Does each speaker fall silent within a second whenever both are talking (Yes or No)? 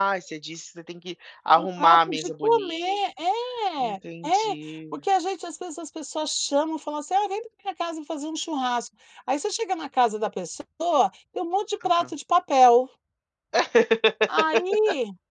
No